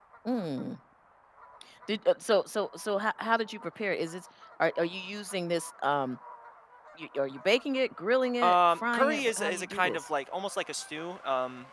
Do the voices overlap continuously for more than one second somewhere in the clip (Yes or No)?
Yes